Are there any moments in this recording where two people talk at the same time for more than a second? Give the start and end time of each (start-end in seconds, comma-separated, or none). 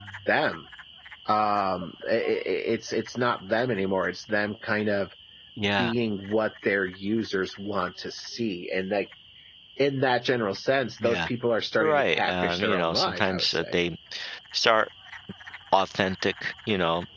11.8-13.8